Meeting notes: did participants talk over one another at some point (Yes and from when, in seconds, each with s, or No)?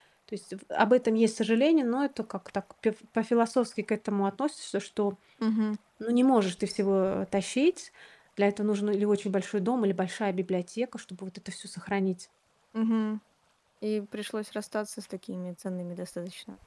No